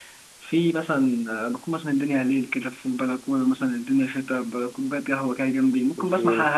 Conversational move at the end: listening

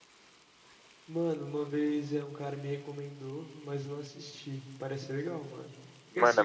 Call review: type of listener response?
listening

